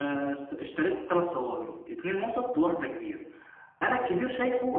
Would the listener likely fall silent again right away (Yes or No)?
Yes